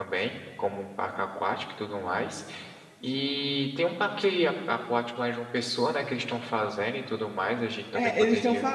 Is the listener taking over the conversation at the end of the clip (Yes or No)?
Yes